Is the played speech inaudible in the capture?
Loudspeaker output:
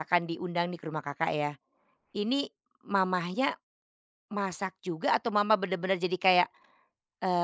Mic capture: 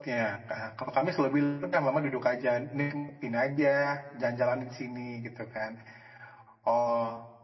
Yes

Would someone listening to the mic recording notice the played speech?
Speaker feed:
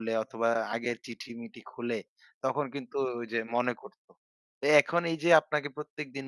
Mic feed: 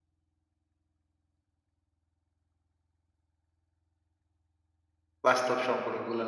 No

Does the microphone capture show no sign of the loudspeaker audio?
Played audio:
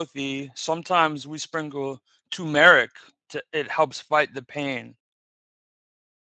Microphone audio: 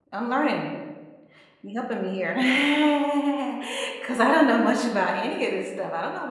Yes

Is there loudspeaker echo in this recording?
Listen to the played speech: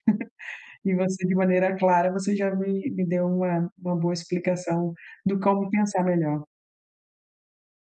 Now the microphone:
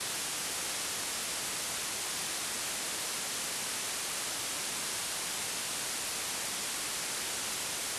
No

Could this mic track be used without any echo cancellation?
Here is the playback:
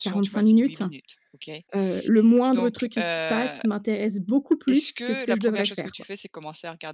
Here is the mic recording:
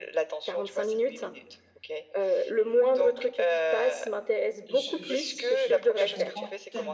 No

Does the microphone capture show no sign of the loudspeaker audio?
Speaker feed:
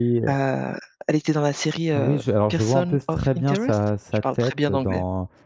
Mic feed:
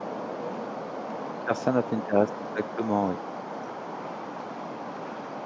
Yes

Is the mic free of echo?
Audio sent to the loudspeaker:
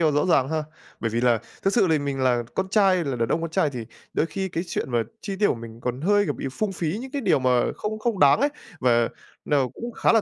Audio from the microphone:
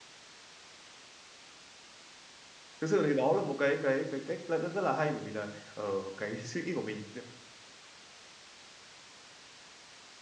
Yes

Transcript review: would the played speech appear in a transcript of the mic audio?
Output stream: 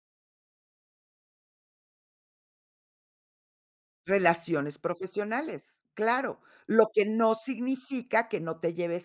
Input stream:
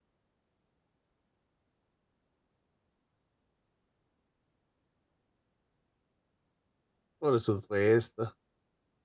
No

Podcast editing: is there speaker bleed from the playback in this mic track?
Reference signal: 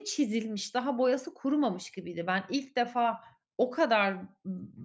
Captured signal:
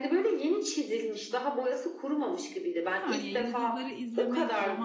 Yes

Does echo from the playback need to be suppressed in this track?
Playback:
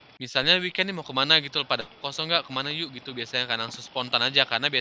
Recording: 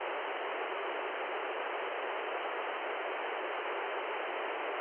No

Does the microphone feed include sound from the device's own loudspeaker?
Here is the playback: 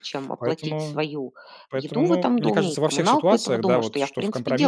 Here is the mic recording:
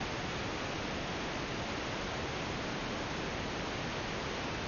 No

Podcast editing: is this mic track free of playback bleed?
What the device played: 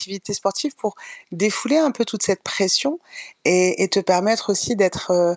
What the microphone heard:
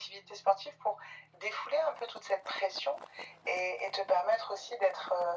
No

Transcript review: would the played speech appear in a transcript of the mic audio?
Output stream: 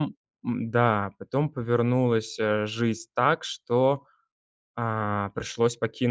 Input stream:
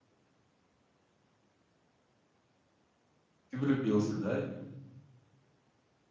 No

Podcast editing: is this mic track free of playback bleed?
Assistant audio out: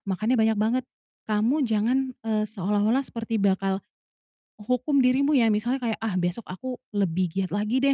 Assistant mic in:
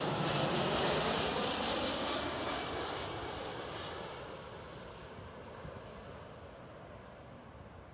Yes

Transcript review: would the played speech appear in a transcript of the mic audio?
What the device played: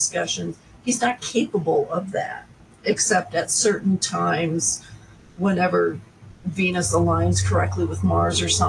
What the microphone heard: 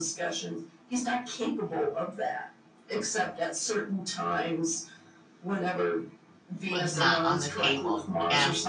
Yes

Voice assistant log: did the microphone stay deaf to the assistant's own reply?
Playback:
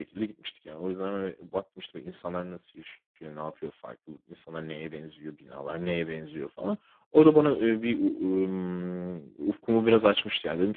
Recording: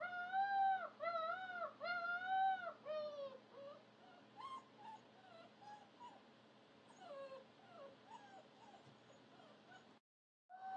Yes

